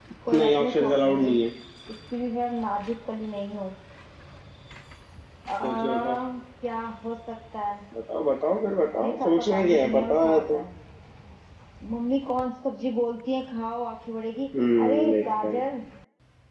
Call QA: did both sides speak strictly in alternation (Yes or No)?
No